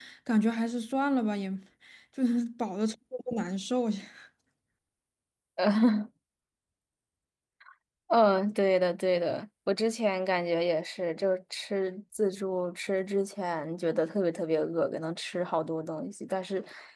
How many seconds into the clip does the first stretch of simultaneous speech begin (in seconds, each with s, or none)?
none